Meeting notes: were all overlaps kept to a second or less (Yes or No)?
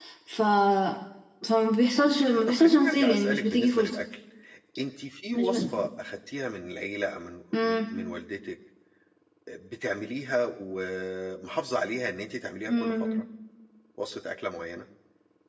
No